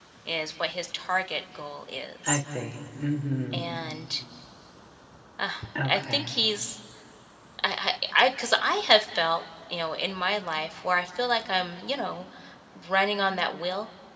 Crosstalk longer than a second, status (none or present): none